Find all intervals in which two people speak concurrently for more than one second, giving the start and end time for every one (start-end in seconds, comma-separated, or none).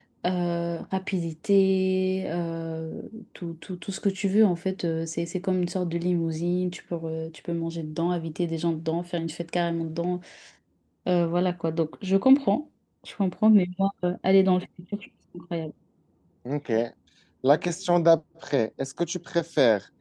none